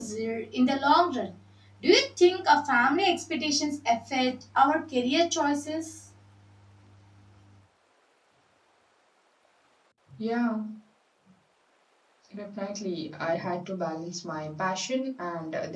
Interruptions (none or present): none